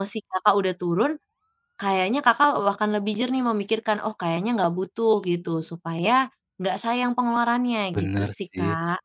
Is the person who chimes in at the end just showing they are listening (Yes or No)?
No